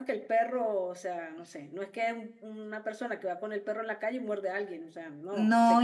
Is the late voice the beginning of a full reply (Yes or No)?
Yes